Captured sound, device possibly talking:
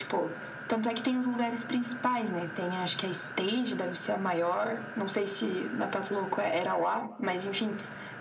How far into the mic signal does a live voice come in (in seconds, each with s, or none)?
none